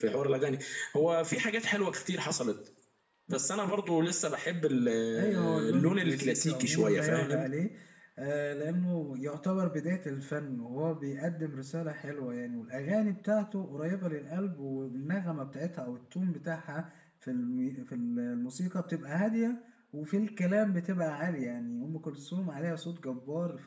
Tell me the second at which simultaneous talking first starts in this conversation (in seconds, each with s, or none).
5.1 s